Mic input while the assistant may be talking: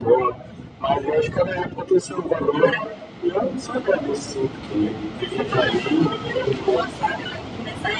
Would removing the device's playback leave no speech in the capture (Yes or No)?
Yes